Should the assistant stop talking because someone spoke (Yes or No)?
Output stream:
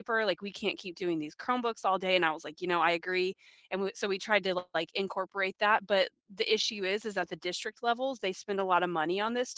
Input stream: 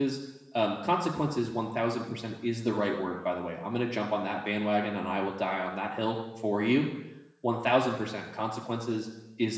Yes